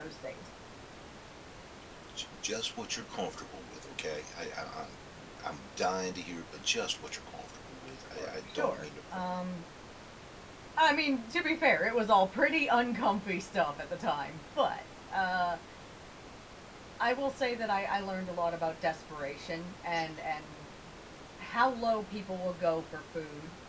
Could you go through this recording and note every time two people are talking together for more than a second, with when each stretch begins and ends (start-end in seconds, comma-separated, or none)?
8.2-9.4